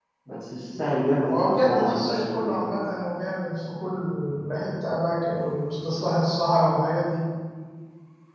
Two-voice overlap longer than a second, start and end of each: 1.2-2.6

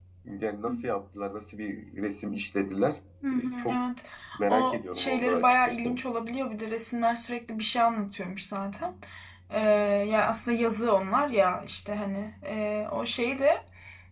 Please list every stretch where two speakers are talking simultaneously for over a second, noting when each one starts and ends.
4.5-6.0

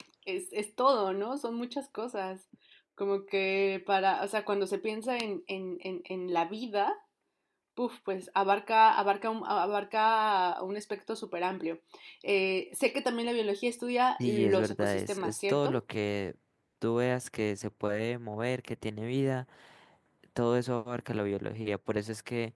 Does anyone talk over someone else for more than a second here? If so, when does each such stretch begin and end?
14.2-15.8

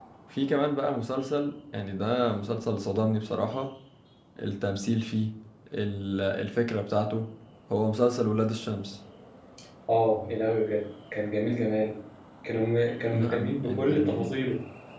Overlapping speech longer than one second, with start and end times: 13.1-14.3

